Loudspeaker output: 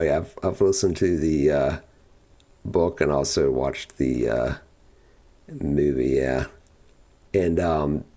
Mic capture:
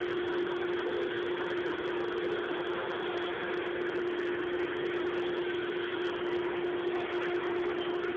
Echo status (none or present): none